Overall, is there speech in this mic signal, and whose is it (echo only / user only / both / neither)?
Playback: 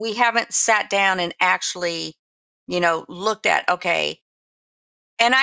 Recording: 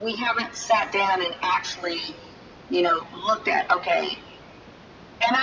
echo only